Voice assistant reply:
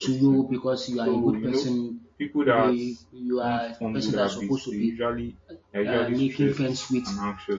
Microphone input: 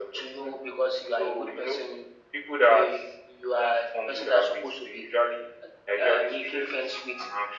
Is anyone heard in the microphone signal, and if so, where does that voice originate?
echo only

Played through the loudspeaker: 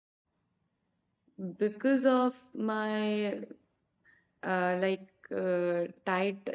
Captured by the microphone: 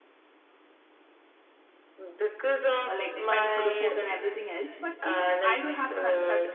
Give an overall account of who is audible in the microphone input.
both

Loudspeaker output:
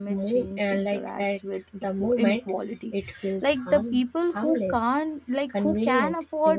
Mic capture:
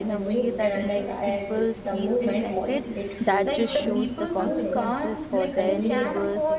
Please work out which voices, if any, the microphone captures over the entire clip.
both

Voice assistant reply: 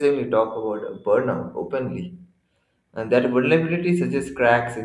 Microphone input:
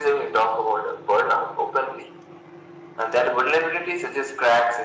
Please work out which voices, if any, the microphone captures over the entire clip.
echo only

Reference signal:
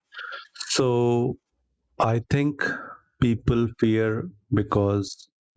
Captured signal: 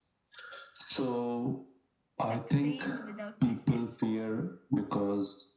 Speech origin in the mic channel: both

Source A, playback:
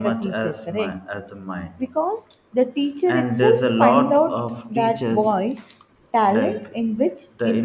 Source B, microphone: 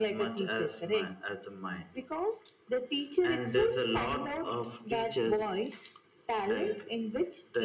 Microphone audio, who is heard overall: echo only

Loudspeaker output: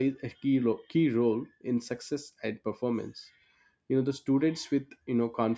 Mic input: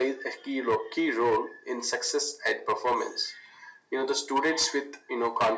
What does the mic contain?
echo only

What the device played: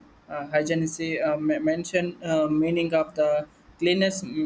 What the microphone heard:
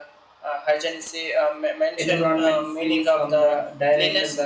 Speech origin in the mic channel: both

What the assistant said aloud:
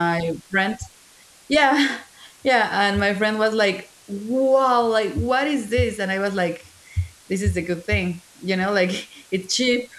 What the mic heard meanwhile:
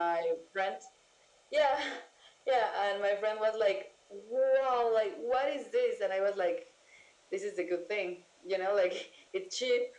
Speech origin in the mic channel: echo only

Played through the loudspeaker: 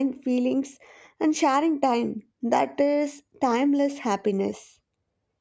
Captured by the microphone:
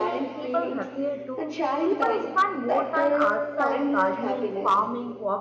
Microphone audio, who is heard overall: both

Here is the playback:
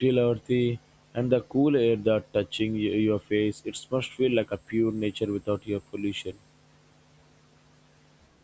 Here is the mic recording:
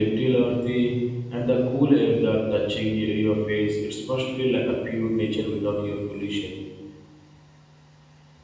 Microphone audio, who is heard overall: echo only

